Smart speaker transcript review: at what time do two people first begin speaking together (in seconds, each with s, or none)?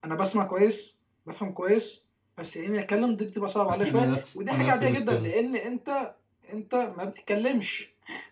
3.8 s